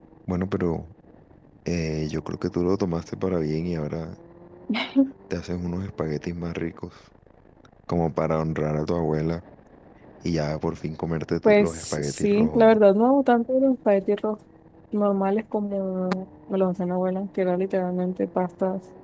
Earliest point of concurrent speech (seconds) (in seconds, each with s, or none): 11.4 s